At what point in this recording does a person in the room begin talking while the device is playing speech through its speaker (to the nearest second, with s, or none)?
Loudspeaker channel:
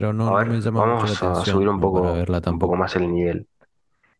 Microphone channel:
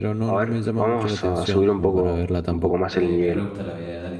3 s